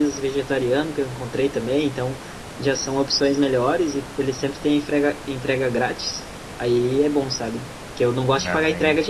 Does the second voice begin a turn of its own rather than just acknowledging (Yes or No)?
No